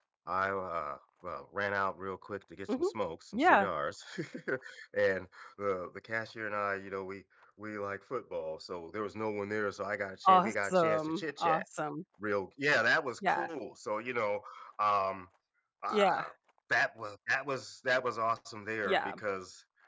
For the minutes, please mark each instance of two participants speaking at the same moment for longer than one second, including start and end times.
10.2-11.6

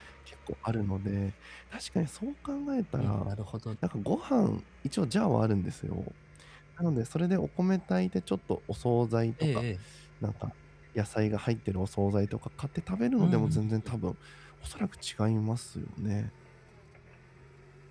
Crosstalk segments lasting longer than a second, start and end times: none

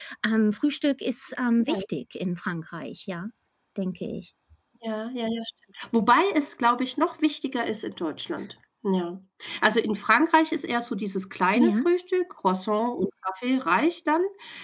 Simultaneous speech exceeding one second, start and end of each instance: none

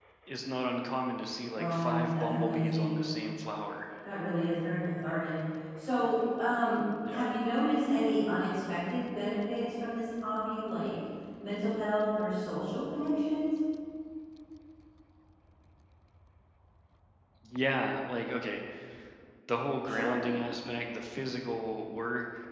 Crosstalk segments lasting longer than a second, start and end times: 1.5-3.0

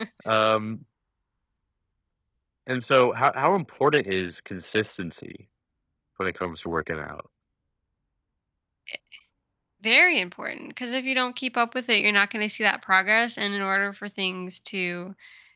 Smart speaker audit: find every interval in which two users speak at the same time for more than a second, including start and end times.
none

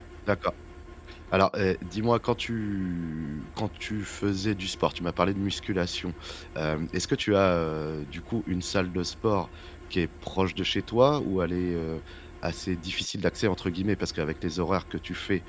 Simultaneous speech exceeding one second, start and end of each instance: none

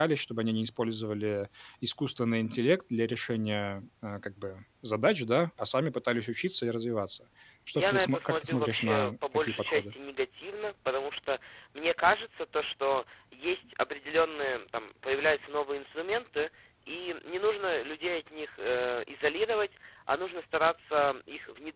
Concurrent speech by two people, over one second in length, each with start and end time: 7.7-9.9

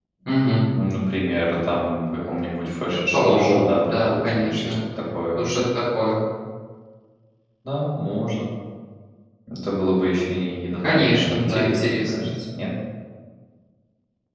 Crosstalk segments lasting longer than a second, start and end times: 3.1-4.7, 10.8-12.3

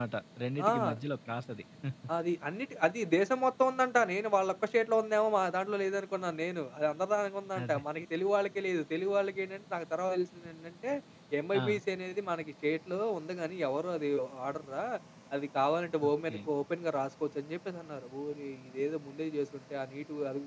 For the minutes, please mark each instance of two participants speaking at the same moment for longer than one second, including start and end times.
none

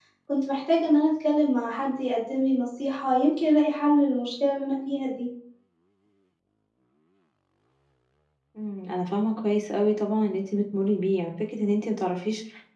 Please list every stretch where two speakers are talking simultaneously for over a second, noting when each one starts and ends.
none

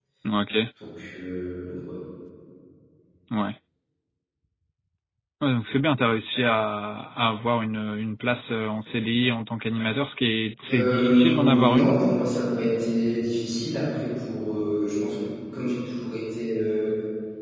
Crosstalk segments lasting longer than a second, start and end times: 10.7-11.9

